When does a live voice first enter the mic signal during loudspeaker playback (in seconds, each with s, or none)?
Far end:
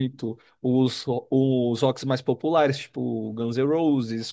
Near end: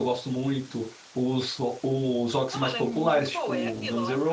2.5 s